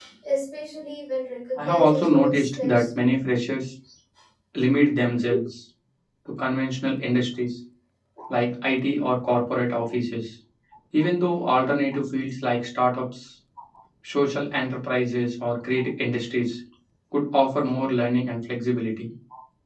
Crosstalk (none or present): present